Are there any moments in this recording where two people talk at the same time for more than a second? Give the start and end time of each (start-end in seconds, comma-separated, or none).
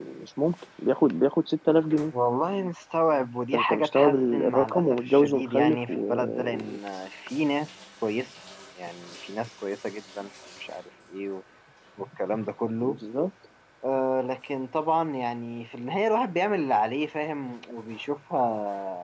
3.5-6.8